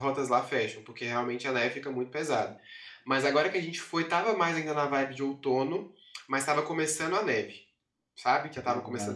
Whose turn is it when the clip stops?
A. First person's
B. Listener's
A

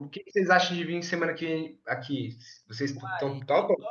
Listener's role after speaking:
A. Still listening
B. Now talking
B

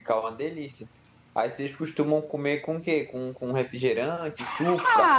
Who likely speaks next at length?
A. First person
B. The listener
B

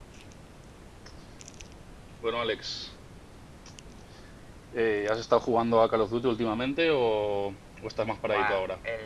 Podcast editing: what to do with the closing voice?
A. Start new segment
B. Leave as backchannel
A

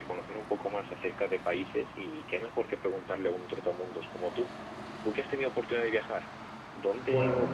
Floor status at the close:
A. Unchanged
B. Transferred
A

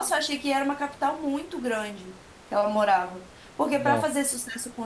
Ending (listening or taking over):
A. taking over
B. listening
B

